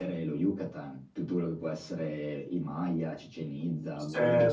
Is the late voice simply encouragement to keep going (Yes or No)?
No